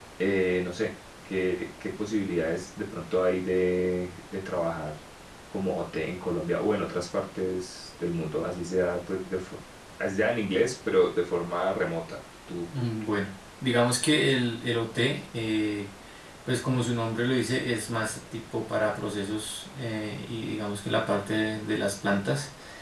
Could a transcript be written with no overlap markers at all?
Yes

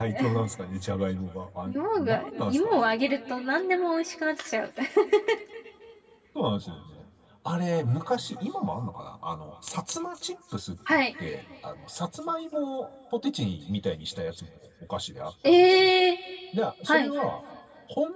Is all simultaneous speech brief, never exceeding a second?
No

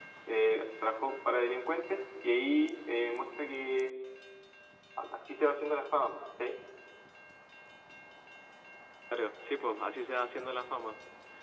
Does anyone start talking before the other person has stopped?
No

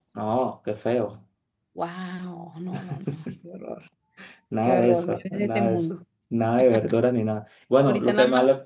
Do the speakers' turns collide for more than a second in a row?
Yes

